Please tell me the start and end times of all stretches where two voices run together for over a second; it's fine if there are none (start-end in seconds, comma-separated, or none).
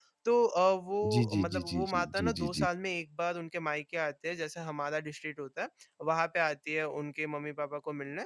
1.1-2.6